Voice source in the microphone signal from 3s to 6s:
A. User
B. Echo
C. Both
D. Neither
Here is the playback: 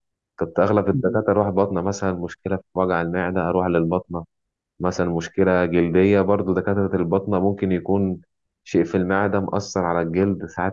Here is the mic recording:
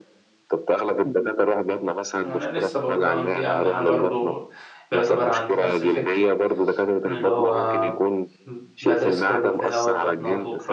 C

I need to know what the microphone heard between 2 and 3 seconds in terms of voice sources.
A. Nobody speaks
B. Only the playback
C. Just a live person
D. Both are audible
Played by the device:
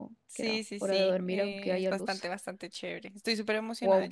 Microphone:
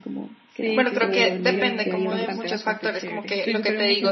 D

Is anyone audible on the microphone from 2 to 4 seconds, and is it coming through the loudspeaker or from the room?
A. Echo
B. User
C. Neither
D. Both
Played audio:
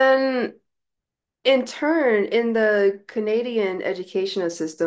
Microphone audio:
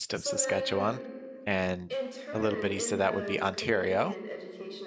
D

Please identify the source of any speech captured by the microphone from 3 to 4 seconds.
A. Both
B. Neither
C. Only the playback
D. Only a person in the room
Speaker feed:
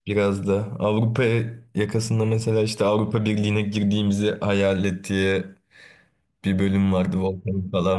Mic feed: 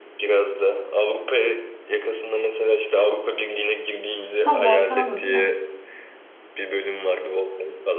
C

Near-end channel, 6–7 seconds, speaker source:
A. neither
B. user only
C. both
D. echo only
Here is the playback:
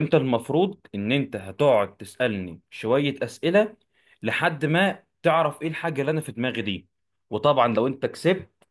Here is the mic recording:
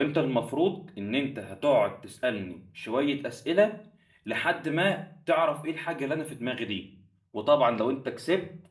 D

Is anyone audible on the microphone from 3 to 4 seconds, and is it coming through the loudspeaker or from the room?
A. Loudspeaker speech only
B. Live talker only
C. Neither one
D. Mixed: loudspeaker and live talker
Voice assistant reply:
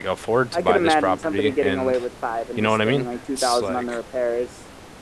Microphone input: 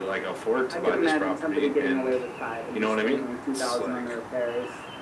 A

